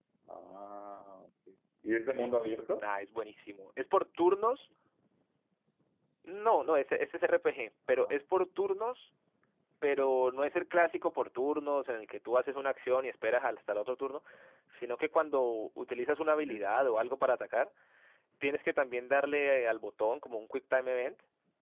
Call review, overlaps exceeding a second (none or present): none